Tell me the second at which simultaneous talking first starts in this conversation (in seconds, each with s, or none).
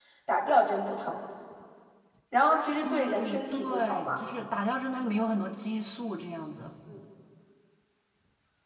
2.8 s